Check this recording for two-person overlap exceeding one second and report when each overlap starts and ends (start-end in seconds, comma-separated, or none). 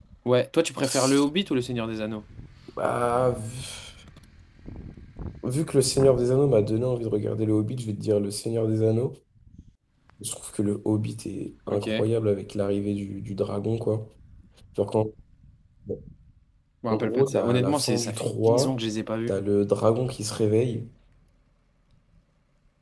16.9-18.7